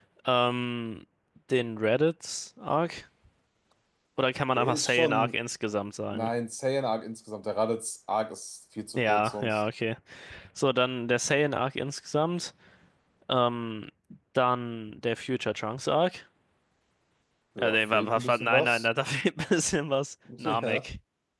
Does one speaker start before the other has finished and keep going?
Yes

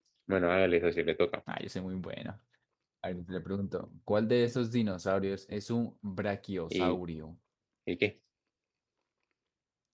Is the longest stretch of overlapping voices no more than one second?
Yes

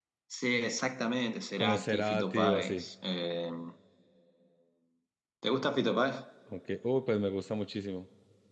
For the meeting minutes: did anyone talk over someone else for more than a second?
Yes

